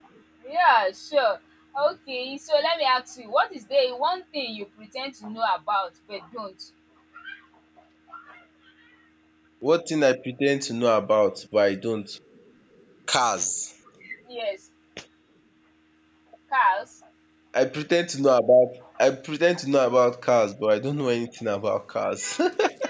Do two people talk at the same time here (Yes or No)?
No